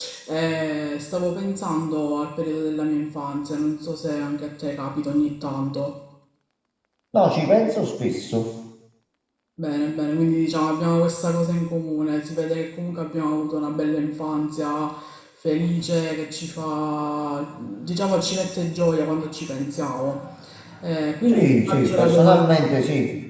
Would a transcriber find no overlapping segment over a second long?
No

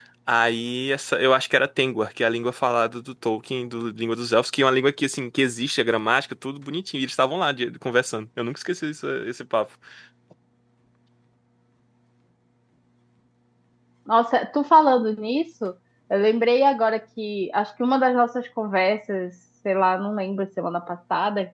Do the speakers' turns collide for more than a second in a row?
No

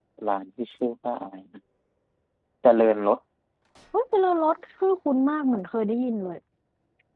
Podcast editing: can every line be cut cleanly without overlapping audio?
Yes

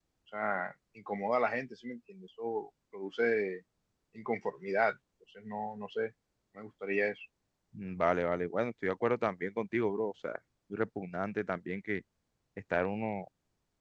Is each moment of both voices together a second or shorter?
Yes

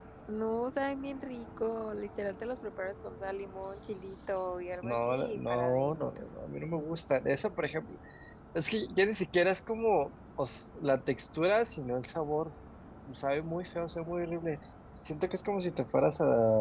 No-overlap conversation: No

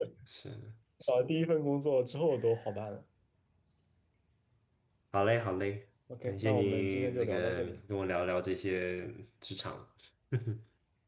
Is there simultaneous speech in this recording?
Yes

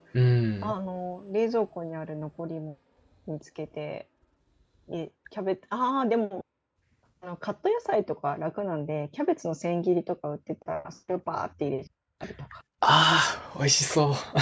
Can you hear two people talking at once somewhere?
No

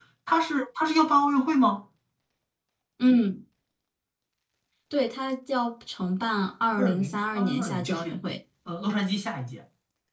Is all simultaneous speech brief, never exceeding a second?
No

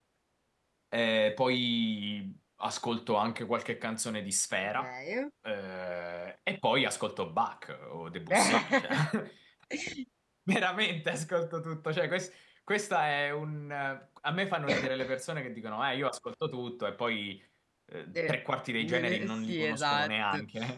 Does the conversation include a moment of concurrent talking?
Yes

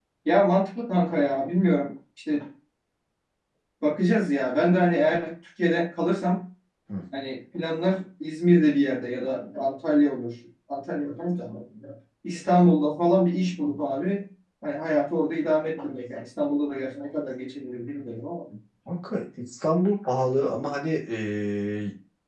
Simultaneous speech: No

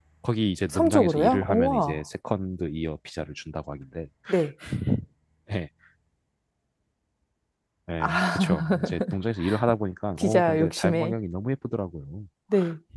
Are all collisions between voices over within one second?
No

